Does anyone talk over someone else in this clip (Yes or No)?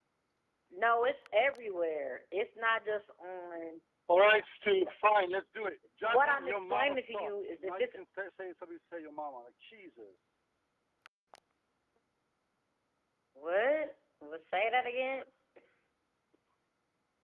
Yes